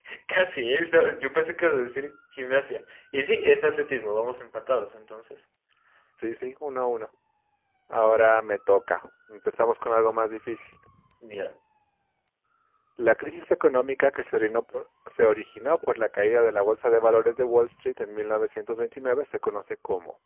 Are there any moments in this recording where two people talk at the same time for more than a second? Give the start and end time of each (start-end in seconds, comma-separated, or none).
none